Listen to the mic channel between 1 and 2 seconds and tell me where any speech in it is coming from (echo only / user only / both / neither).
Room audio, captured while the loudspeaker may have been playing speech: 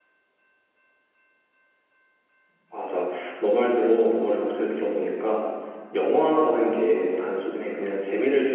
neither